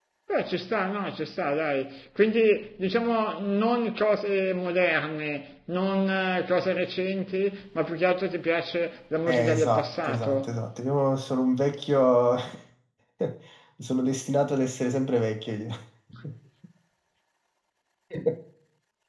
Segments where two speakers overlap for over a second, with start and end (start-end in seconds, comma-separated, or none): 9.3-10.6